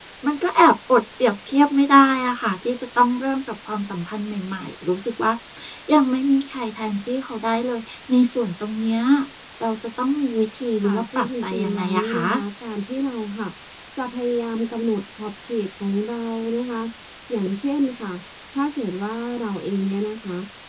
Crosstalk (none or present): present